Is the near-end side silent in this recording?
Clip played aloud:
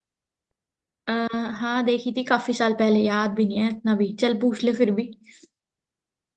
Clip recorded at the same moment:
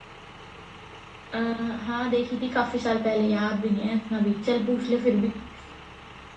Yes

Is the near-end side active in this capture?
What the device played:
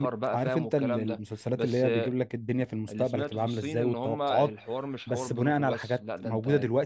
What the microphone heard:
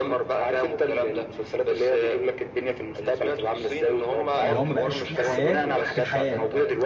Yes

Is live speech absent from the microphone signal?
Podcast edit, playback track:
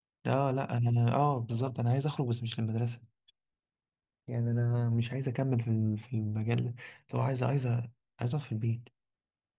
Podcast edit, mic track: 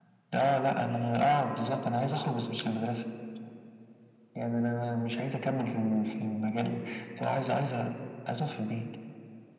Yes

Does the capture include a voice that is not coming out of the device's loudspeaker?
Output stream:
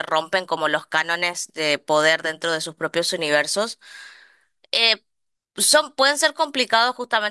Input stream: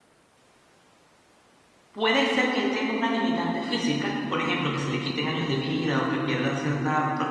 Yes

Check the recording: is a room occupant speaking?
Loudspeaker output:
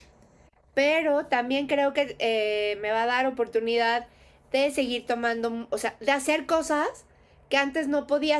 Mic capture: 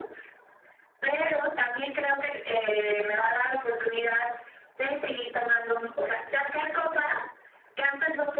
No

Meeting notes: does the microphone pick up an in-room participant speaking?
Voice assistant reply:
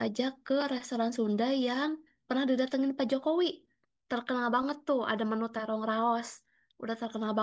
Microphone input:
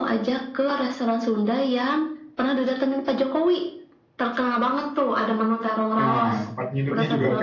Yes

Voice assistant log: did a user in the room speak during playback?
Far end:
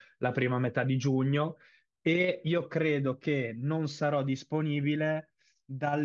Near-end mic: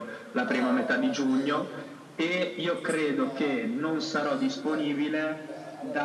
Yes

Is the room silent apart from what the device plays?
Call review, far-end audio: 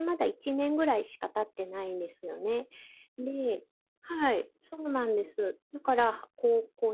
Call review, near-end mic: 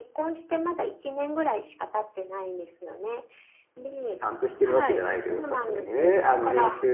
No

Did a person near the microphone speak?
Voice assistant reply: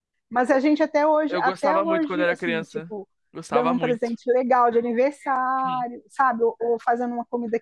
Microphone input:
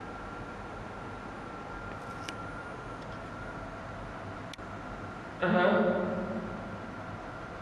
Yes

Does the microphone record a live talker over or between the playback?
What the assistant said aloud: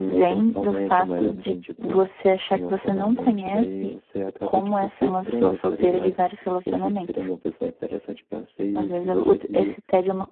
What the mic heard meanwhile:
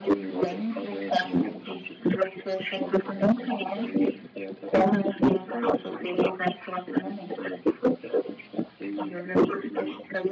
No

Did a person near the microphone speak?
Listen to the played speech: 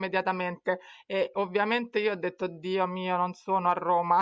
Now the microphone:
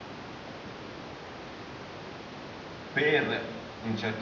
Yes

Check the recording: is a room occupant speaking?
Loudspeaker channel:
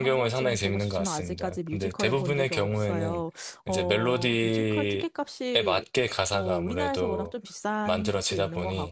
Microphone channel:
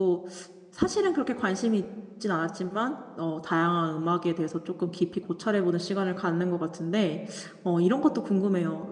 Yes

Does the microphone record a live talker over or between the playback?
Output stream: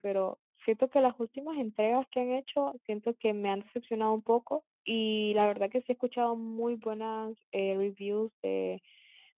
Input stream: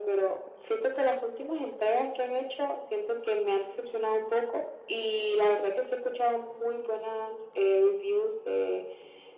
No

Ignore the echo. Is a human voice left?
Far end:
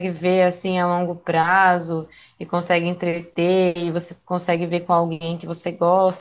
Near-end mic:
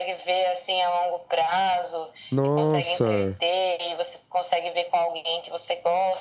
Yes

